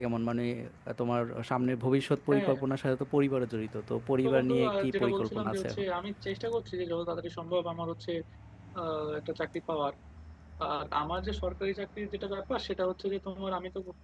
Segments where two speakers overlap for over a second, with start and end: 4.2-5.8

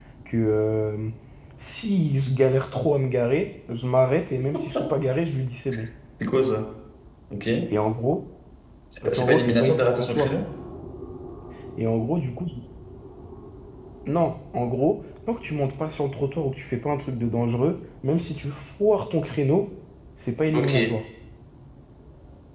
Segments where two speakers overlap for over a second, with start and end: 9.1-10.3

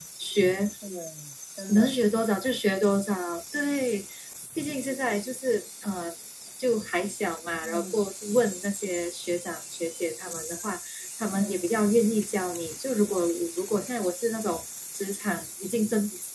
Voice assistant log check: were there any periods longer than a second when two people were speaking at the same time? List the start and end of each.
none

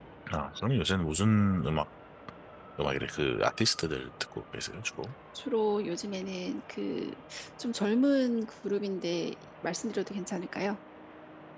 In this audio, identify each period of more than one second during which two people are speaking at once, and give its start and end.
none

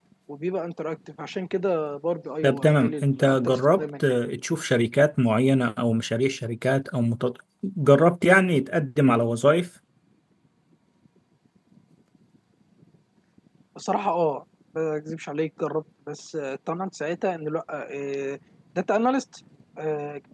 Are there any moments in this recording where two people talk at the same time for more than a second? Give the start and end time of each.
2.4-4.0

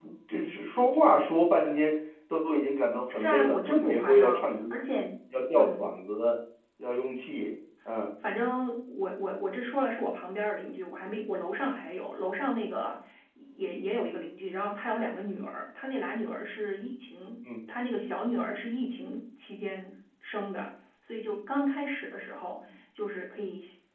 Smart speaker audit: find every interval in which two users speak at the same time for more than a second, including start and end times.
3.1-4.5

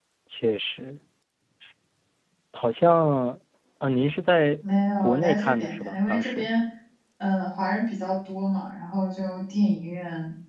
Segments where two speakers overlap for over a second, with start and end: 5.0-6.5

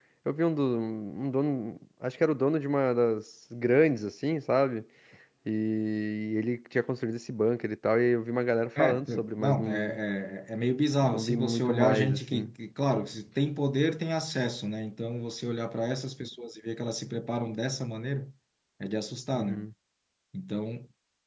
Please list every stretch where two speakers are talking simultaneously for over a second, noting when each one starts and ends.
8.8-10.0, 11.0-12.5

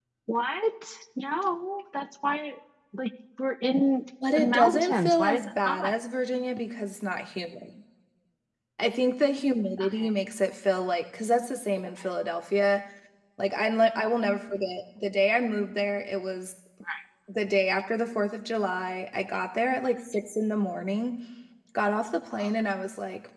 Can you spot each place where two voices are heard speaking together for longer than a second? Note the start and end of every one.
4.3-6.0

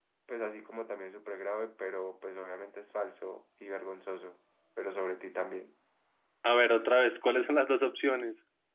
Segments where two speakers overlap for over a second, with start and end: none

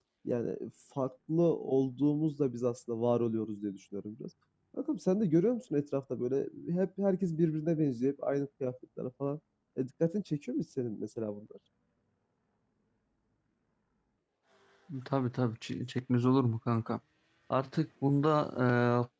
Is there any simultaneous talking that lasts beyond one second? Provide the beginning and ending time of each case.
none

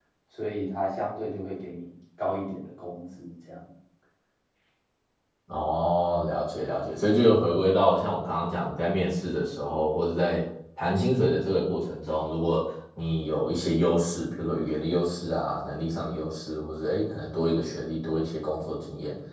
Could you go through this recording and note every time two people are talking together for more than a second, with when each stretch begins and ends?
none

